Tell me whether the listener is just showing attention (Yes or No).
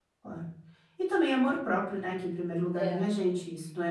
Yes